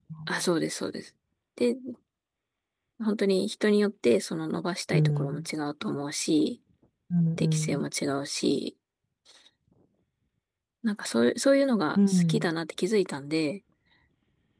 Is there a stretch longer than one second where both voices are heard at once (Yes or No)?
No